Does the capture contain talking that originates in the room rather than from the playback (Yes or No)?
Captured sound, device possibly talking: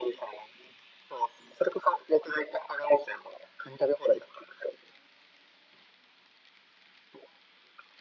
No